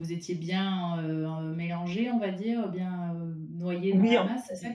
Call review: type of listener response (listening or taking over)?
taking over